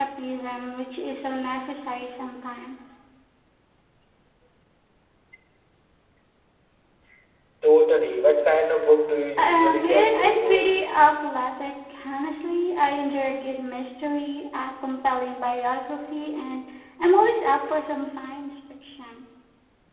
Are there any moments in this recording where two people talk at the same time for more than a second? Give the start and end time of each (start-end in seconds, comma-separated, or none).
9.4-10.8